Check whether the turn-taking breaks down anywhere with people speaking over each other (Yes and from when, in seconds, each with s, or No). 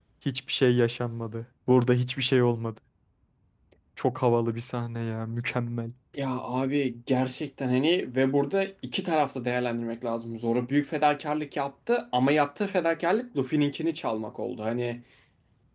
No